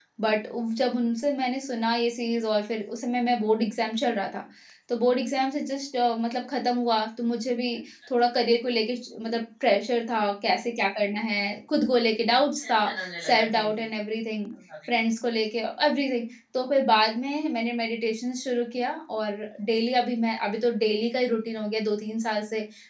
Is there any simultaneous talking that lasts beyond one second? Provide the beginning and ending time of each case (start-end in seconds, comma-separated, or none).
none